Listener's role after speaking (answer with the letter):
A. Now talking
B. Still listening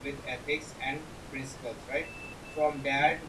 B